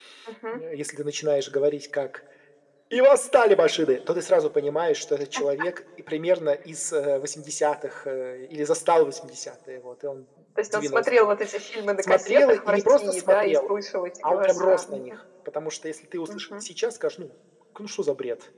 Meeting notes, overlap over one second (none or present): present